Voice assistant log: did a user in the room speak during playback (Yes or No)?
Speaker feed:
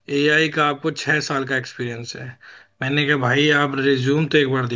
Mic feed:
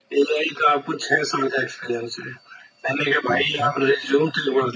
Yes